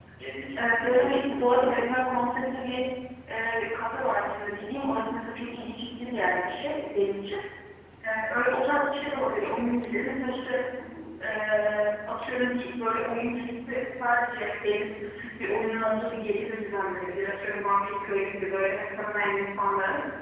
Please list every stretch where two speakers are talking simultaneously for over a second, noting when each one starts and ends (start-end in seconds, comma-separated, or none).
0.6-1.9